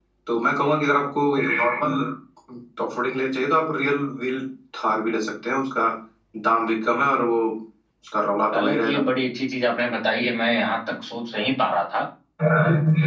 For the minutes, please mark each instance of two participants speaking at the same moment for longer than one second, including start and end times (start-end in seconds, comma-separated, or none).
none